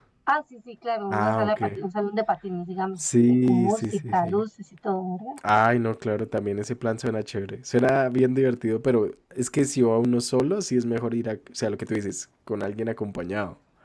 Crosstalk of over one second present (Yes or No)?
Yes